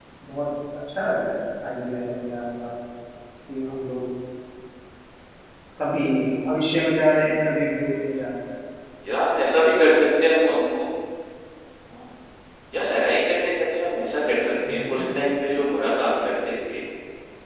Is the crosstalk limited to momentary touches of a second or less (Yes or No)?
Yes